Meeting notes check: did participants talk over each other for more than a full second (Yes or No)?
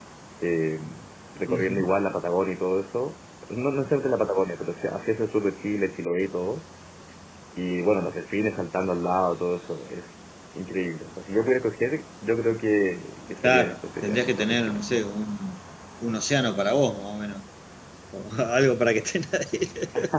Yes